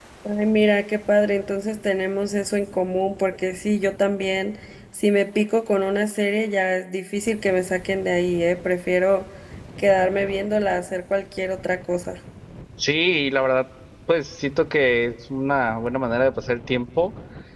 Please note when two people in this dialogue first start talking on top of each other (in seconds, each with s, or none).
none